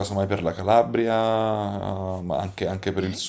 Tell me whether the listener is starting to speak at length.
Yes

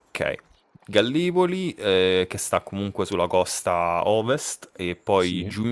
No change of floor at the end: Yes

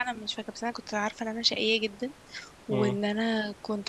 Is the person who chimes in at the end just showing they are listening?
Yes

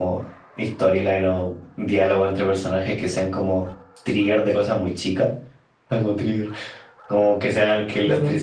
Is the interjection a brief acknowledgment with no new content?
Yes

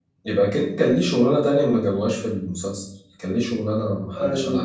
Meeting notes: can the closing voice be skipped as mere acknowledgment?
No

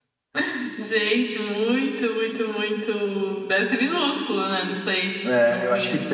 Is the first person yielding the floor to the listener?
Yes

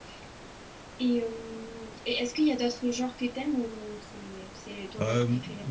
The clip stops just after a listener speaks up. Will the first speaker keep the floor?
No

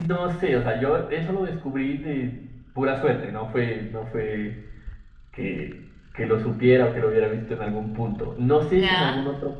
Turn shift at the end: No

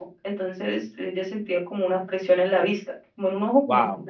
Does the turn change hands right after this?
Yes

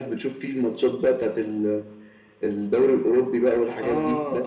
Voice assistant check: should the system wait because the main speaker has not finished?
No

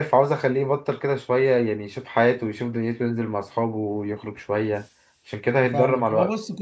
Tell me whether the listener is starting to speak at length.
Yes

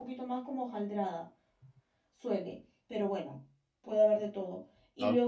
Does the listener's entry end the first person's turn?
No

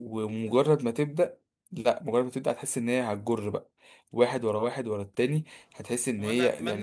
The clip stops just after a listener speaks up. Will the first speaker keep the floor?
No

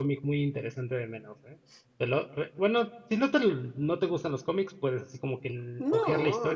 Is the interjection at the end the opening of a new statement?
Yes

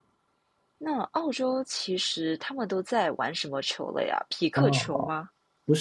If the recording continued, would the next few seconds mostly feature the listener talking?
Yes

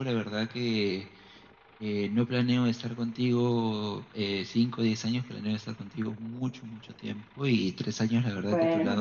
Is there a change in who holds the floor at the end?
No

